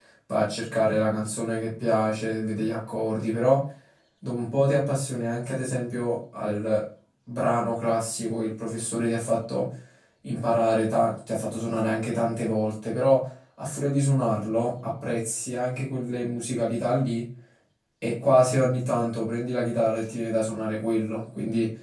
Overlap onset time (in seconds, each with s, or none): none